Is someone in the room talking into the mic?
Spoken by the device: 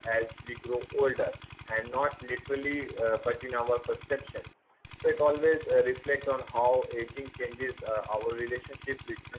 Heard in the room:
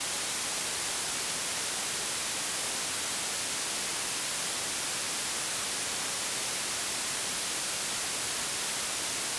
No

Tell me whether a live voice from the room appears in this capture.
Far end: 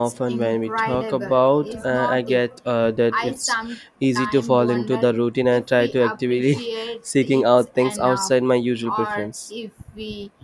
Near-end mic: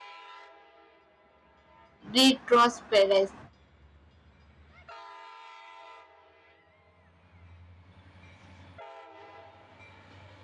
Yes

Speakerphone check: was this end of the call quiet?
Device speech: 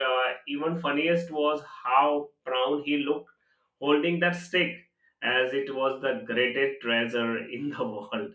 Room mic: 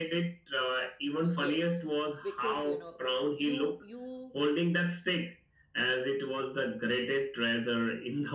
No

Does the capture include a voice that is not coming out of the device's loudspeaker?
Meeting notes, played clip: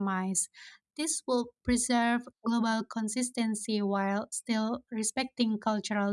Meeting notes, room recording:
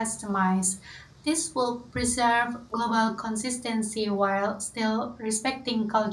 No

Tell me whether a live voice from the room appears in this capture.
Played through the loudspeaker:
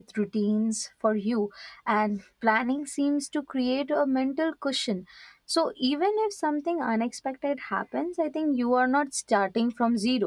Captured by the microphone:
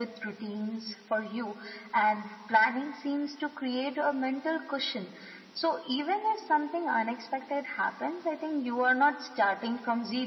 No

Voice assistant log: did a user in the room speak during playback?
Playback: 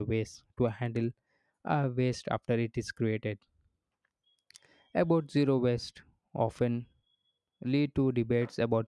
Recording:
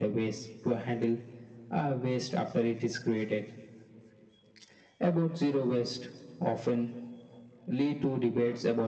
No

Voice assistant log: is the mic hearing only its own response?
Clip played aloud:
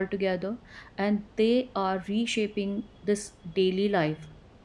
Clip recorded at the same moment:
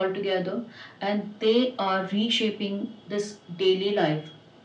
Yes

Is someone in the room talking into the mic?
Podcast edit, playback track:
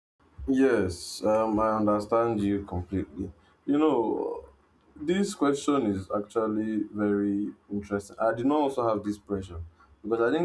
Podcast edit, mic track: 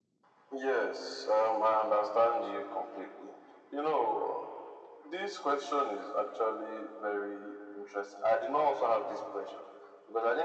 No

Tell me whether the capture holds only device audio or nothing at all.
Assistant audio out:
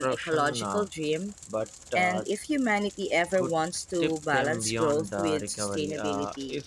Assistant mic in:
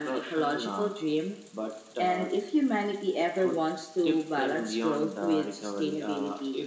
Yes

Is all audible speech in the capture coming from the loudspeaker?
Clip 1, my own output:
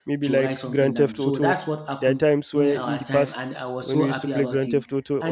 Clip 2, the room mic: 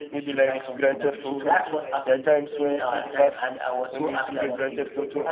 No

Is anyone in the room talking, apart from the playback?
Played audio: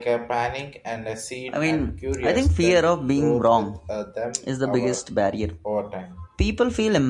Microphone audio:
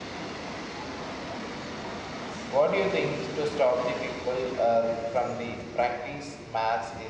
Yes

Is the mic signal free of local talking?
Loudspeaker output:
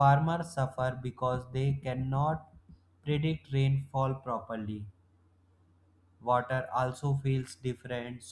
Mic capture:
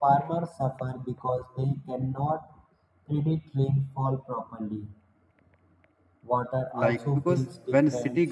No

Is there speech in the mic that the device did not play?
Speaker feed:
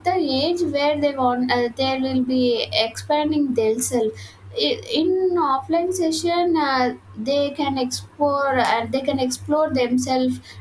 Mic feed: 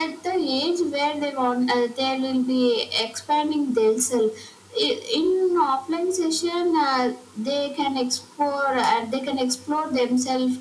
No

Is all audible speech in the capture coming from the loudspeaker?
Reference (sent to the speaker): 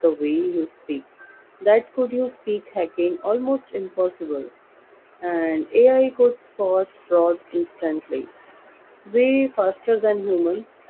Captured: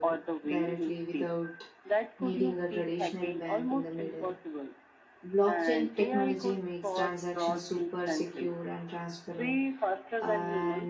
No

